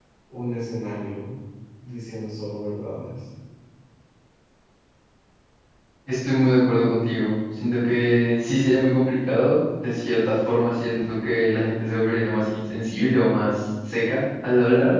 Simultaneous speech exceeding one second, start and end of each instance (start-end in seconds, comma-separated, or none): none